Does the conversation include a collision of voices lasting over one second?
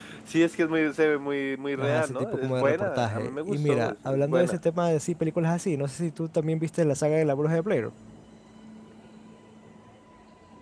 Yes, from 1.8 s

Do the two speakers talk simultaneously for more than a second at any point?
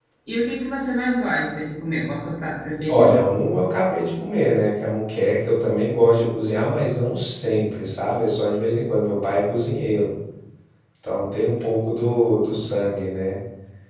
No

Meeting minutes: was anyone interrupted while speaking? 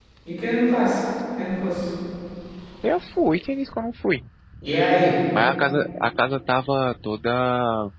No

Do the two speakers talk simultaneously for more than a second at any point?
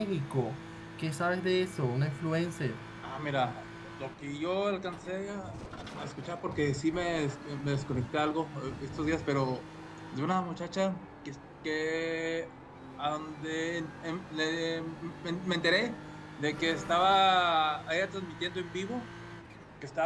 No

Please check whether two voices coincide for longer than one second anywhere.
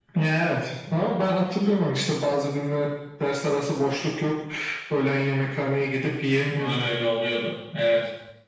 No

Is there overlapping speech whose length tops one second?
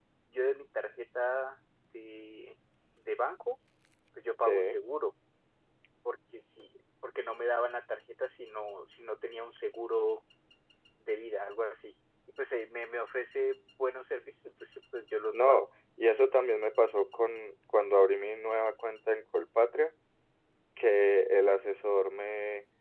No

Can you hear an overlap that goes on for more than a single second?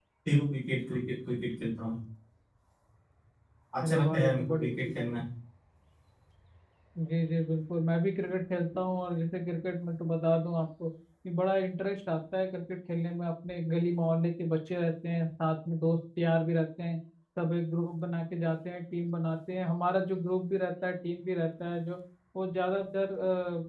Yes, from 3.8 s

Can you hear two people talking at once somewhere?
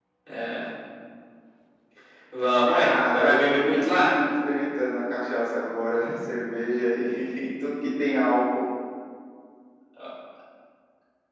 Yes, from 2.7 s

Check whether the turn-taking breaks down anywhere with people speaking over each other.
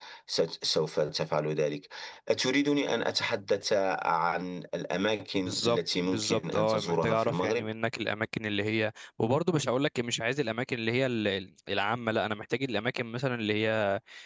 Yes, from 5.4 s

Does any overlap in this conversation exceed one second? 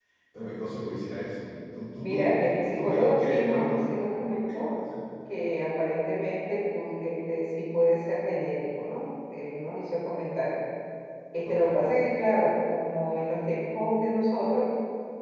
Yes, from 2.0 s

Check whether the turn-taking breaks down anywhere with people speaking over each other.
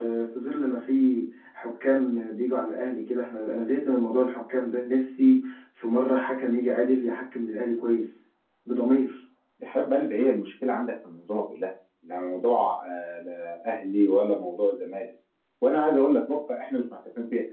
No

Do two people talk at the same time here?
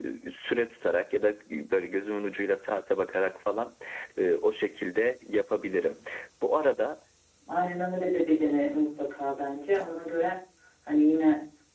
No

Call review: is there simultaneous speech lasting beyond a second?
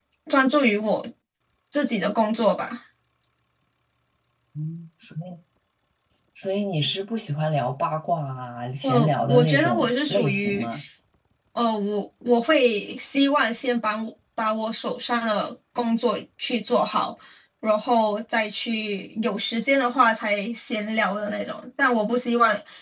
Yes, from 8.8 s

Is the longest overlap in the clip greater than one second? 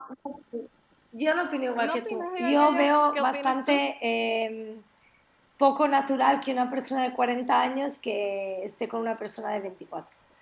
Yes, from 1.8 s

